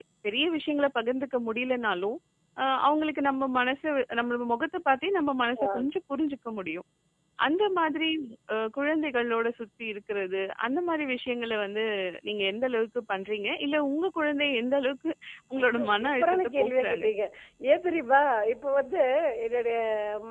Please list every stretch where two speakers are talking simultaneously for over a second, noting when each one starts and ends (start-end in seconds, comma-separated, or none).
15.6-17.0